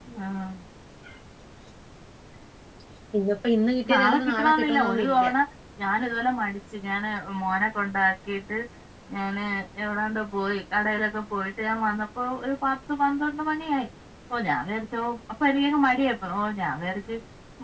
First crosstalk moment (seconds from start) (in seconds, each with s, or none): 4.0 s